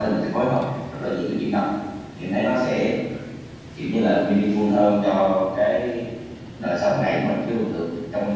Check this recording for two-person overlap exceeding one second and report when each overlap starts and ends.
none

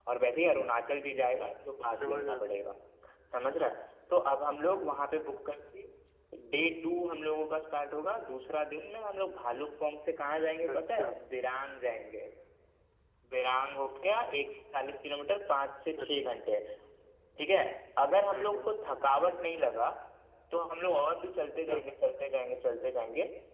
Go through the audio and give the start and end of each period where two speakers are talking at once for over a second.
none

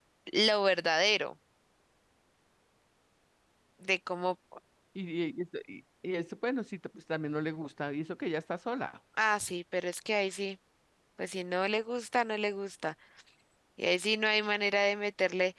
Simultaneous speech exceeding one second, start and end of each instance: none

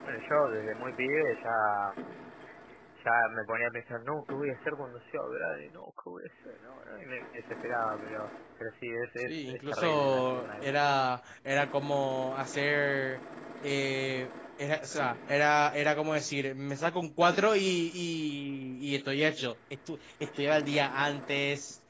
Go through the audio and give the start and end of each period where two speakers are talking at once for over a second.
9.3-10.6

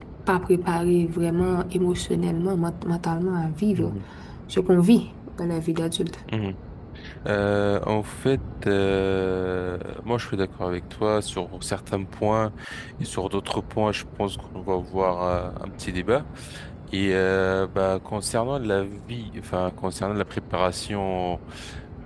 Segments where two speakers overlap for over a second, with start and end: none

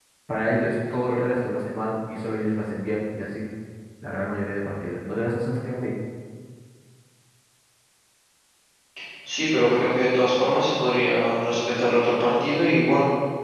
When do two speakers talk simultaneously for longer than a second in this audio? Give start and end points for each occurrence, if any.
none

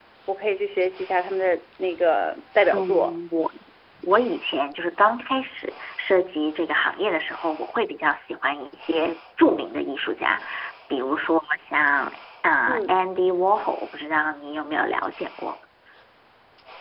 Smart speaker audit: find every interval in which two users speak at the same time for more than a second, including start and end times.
none

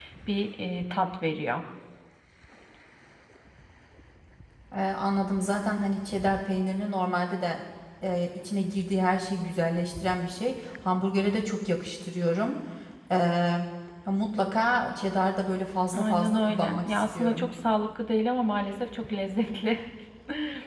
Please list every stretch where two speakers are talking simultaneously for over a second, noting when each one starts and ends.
15.9-17.5

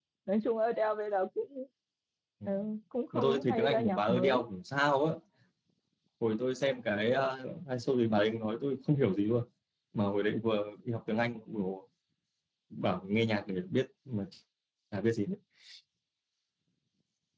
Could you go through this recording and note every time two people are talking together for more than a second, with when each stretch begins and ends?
3.1-4.5

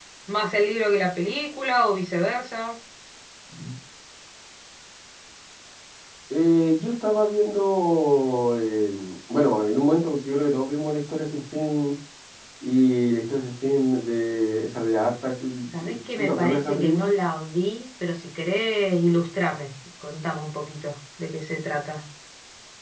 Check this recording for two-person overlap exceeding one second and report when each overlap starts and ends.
15.7-17.1

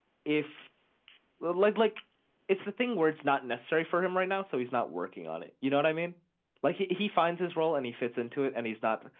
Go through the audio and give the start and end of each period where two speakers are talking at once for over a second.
none

